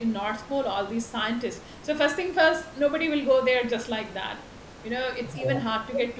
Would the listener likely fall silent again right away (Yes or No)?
Yes